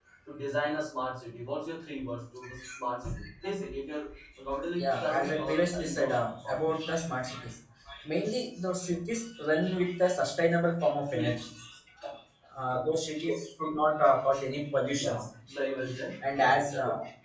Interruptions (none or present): present